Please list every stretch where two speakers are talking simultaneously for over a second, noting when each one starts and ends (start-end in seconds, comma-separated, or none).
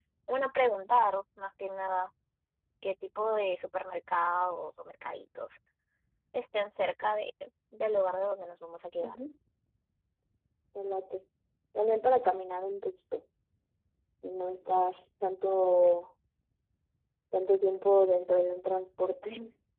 none